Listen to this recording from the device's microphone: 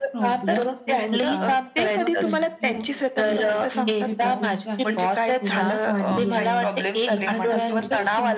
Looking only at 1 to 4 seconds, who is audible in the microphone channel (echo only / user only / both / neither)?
both